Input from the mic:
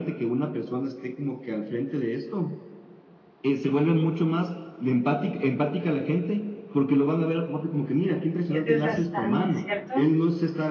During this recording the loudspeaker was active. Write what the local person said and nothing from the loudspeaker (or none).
Es desgastante, ¿cierto?